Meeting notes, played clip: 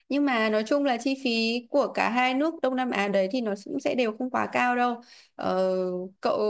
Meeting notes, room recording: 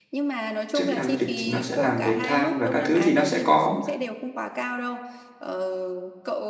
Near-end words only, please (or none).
Trước khi làm du lịch thì nó sẽ làm về than và các thứ thì nó sẽ có